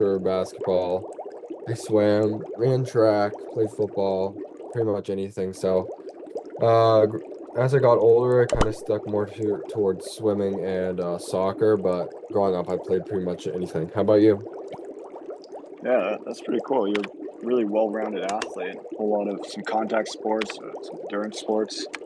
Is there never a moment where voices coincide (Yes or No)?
Yes